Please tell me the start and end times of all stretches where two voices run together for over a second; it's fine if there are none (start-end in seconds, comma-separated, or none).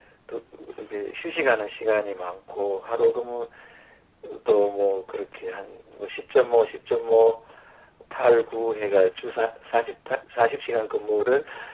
none